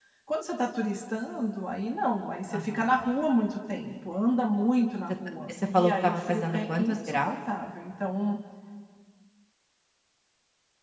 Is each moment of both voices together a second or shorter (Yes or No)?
No